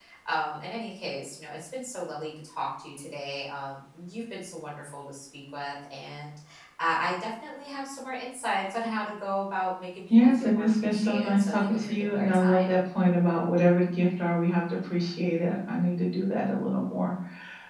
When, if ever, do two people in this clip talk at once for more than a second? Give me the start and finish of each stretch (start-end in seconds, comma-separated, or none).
10.2-12.8